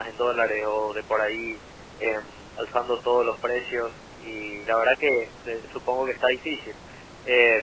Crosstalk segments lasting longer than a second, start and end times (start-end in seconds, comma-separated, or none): none